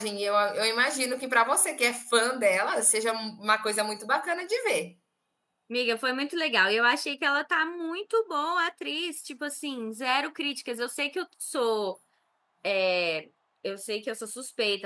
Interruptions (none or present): none